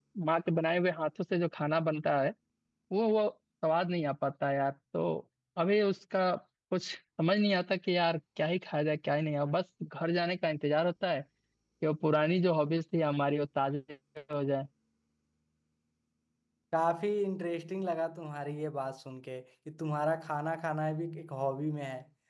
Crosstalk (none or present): none